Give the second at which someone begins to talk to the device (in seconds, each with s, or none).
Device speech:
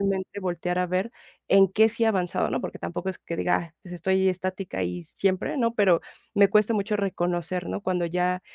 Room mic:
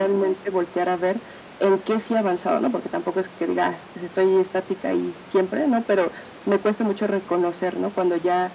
none